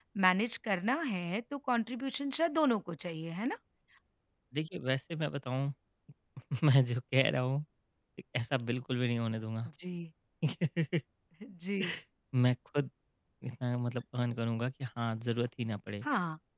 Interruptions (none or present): none